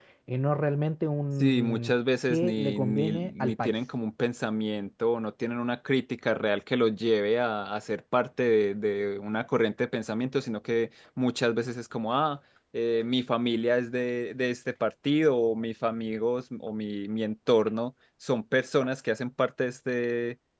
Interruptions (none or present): present